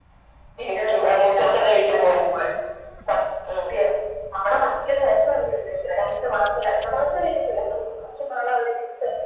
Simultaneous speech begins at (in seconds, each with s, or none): 0.7 s